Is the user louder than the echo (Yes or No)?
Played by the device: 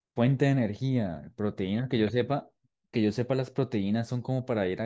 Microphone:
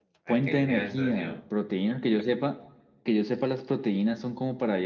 No